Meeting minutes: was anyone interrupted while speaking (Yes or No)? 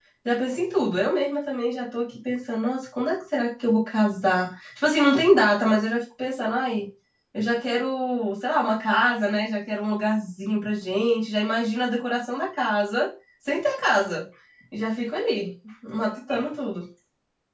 No